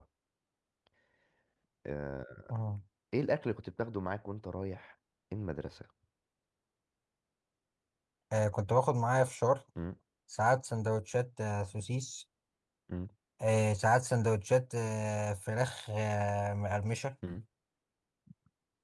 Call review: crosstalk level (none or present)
none